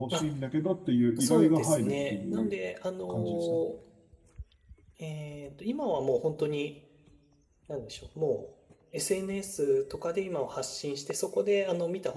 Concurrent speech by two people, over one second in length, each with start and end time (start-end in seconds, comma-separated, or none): 1.2-2.5